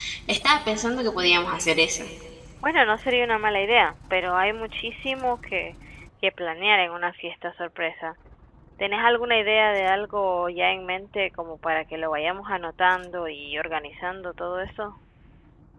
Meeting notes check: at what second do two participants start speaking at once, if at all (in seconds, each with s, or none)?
none